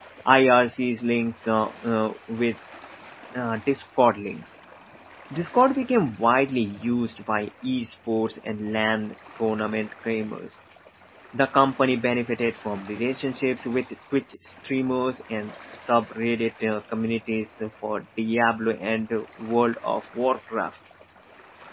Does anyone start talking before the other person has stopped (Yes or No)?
No